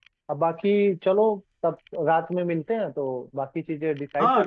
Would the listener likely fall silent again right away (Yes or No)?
No